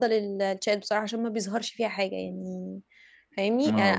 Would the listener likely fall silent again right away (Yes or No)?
Yes